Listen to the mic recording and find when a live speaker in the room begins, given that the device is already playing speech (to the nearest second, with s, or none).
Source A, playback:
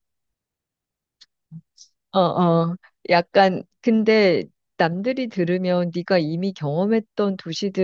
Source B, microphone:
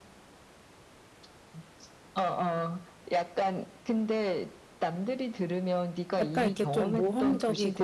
6 s